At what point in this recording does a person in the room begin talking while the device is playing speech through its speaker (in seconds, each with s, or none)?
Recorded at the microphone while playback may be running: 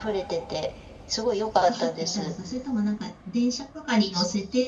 1.6 s